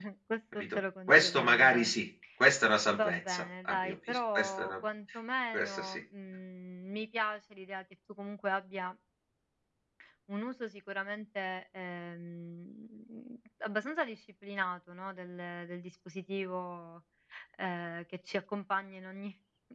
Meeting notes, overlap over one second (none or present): present